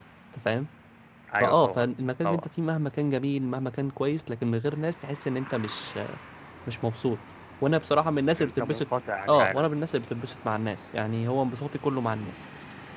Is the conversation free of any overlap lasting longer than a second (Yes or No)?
Yes